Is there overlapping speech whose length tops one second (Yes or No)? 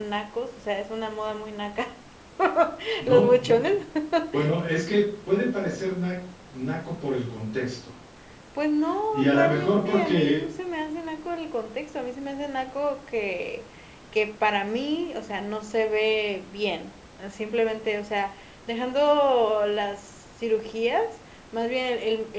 Yes